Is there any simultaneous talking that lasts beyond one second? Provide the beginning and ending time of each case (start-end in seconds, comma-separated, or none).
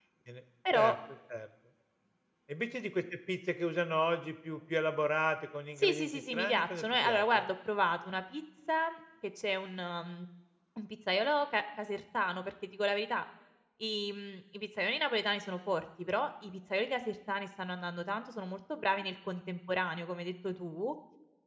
5.8-7.5